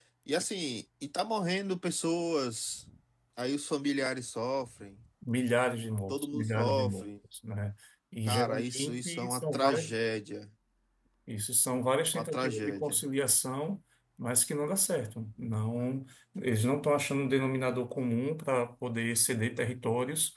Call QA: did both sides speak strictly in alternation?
No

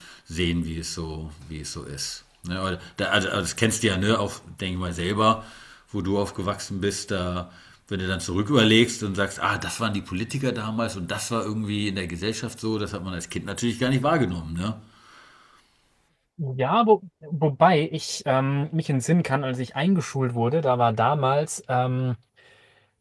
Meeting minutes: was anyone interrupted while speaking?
No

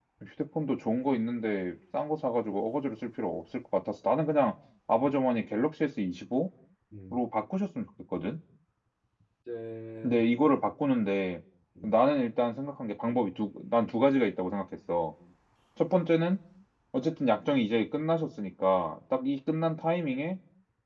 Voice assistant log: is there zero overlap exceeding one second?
Yes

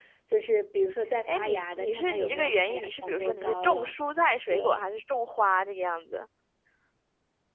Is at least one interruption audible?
Yes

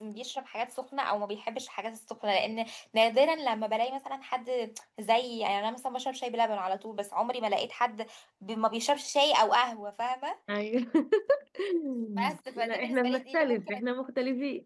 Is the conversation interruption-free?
No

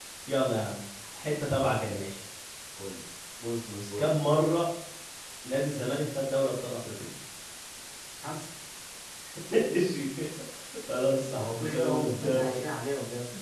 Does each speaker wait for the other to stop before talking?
No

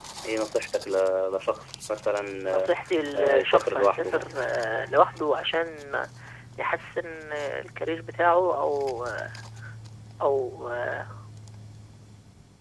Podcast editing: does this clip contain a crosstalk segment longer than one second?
Yes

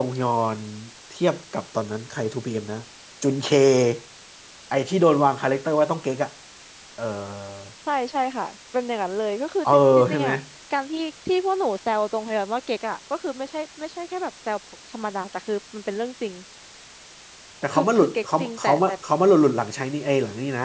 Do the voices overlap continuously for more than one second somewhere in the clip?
Yes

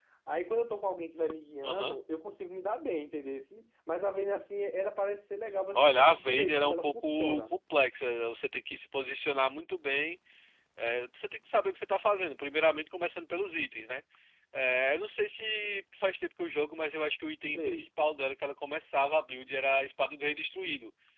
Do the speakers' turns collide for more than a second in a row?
Yes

